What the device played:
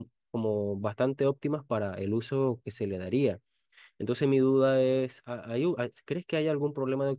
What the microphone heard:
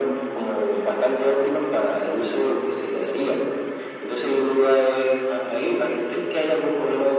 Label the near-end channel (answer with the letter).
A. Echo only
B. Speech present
A